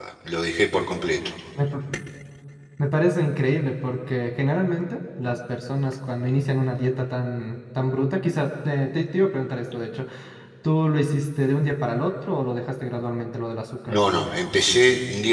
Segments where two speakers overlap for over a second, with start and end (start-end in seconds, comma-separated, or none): none